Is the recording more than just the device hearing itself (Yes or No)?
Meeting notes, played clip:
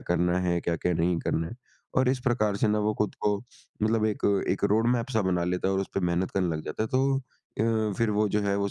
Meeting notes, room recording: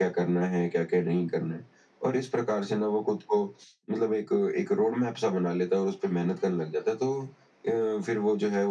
No